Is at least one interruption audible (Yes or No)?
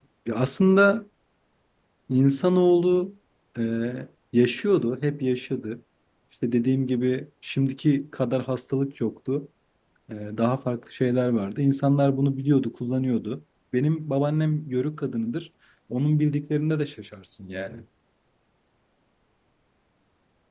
No